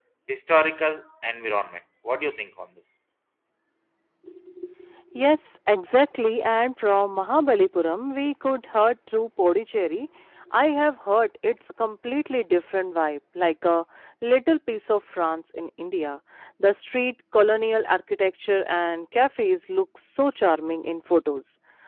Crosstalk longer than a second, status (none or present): none